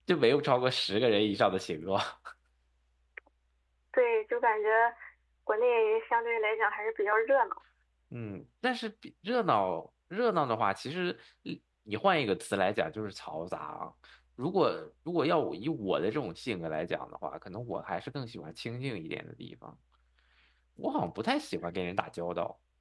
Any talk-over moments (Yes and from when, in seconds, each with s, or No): No